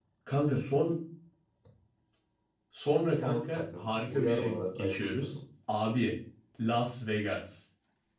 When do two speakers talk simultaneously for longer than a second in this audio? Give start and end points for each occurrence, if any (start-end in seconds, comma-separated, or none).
3.2-5.4